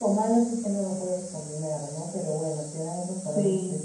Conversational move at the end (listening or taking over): listening